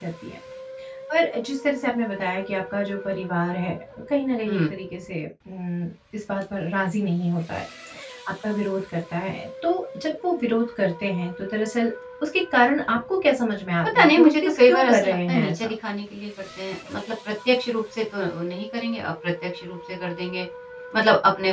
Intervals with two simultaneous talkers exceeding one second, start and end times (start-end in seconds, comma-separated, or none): 13.9-15.7